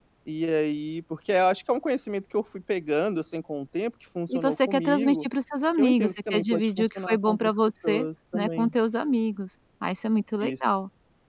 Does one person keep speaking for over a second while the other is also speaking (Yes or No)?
Yes